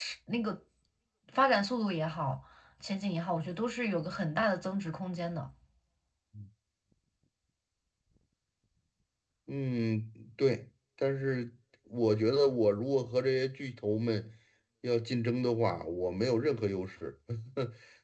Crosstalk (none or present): none